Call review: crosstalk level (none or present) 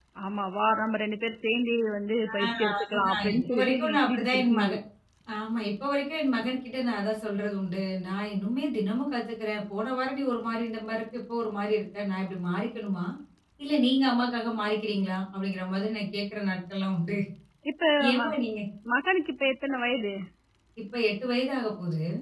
present